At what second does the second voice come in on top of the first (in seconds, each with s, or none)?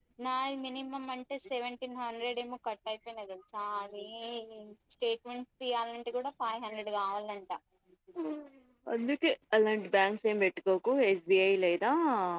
none